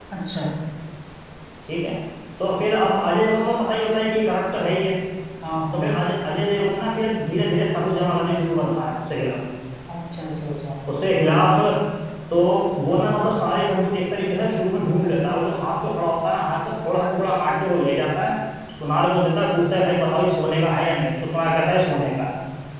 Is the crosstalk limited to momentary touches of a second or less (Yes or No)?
Yes